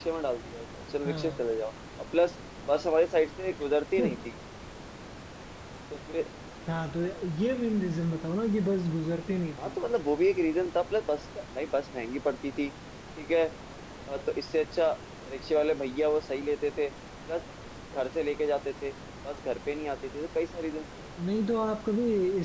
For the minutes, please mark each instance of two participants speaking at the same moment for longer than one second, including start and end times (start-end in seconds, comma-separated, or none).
none